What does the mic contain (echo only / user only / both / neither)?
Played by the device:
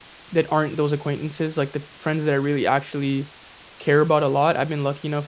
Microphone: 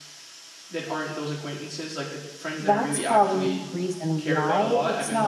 both